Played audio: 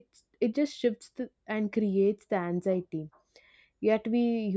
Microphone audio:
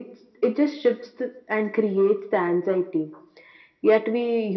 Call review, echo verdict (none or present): present